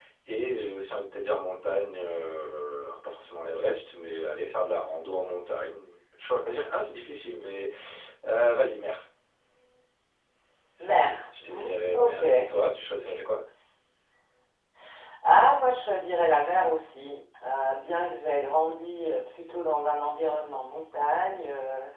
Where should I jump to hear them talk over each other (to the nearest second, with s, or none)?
11 s